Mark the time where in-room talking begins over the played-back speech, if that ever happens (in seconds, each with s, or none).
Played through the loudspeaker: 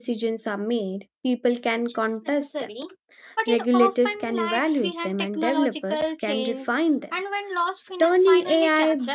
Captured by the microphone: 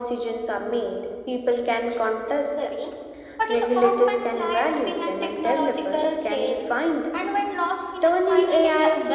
none